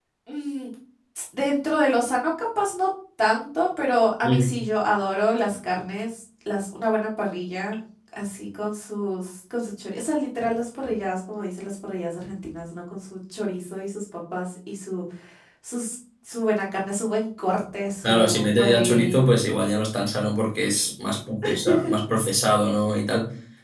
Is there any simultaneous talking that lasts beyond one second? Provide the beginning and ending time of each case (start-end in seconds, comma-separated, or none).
18.0-19.3